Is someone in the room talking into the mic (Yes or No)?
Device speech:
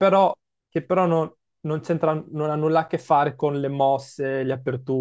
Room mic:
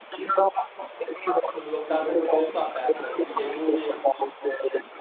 Yes